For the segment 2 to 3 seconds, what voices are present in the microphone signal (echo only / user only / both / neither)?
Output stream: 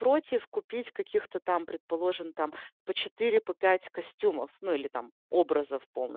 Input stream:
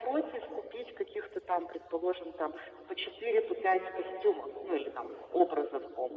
echo only